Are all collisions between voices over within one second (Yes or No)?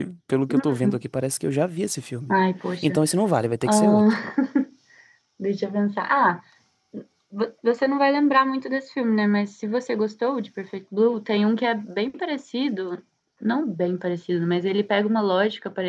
Yes